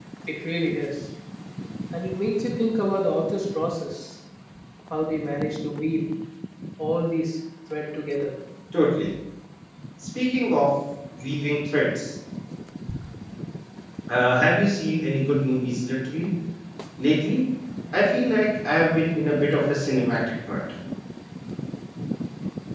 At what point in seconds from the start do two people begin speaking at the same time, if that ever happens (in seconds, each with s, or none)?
none